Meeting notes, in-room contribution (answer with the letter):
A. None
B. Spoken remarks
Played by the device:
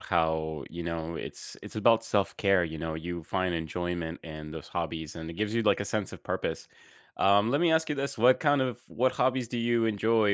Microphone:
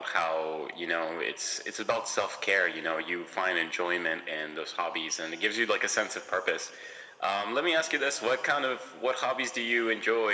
A